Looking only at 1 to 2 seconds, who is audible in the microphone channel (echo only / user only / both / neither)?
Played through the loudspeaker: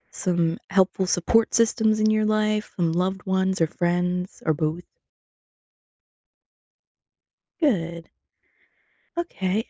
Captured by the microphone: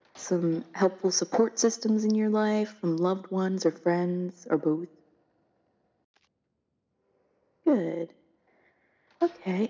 echo only